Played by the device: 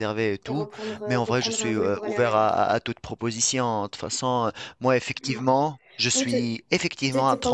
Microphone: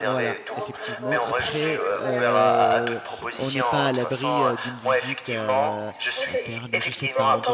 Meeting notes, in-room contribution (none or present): present